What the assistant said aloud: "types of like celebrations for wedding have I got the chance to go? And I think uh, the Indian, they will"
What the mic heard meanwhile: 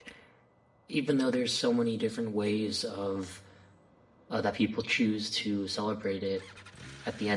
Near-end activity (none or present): present